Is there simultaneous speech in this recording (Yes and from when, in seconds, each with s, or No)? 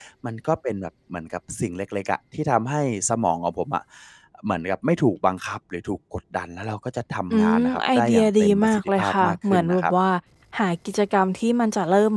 Yes, from 7.3 s